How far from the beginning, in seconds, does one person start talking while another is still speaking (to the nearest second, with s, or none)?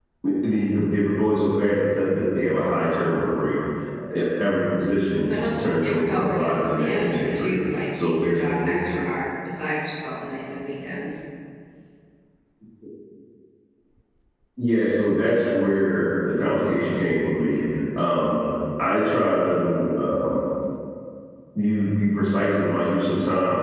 5 s